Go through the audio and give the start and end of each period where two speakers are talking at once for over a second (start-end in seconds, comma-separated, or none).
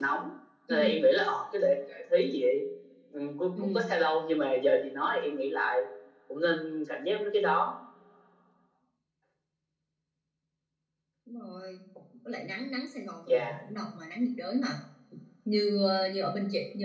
none